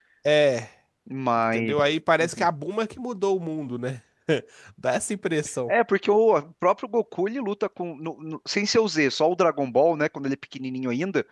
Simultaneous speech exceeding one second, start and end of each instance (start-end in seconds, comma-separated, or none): none